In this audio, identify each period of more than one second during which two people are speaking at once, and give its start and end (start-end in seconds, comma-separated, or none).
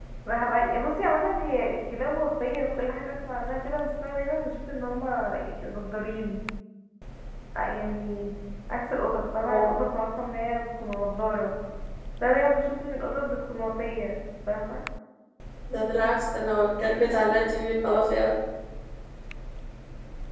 none